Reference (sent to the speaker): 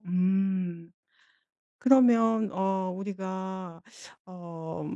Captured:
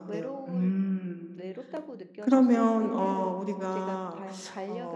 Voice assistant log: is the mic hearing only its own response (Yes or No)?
No